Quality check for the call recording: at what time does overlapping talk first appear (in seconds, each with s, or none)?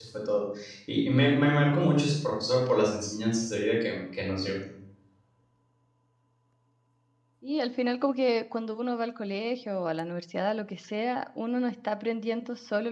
none